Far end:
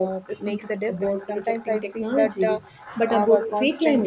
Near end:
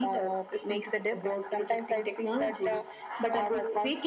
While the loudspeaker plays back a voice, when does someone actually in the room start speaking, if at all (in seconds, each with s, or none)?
none